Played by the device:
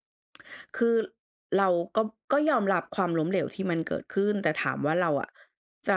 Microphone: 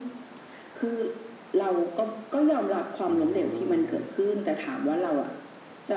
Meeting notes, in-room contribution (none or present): present